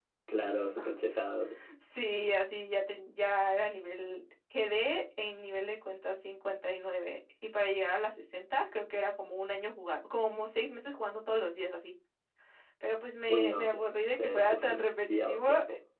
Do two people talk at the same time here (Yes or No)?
Yes